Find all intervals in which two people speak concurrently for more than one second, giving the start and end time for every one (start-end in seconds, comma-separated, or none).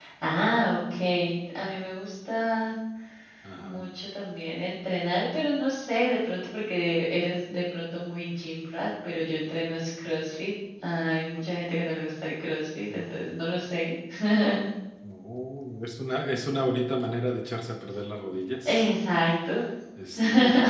none